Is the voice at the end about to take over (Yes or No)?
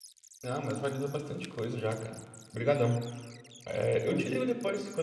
No